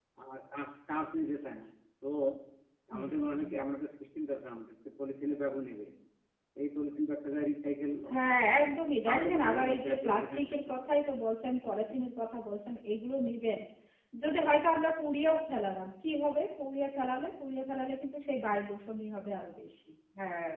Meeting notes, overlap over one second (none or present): present